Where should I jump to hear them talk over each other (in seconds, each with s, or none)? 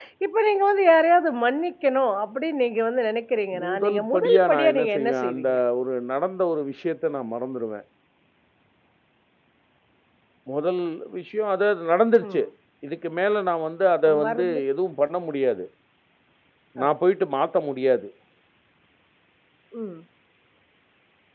3.6 s